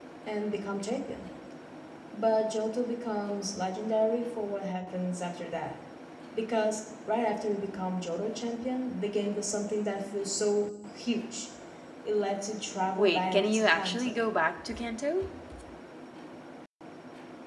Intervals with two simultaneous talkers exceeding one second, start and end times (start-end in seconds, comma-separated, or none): 12.9-14.2